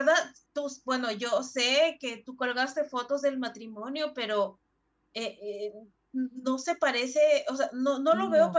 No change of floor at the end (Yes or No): Yes